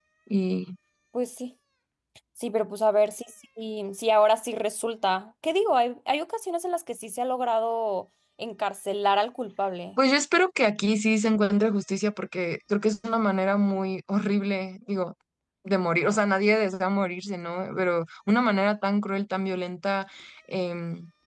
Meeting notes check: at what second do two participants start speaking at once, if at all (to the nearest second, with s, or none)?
none